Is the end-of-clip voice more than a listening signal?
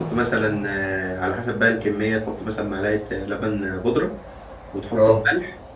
No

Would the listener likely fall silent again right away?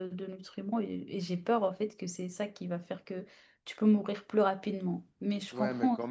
No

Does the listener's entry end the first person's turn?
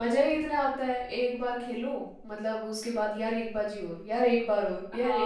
Yes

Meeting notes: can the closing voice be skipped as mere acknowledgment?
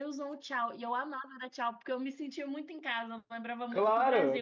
No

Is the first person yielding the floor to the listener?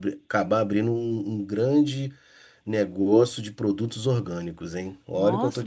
Yes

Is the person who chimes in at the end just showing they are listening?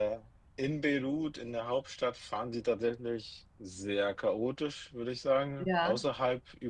Yes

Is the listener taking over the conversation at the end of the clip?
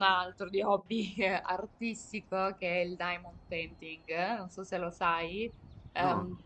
No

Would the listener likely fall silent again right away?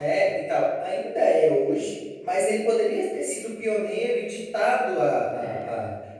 Yes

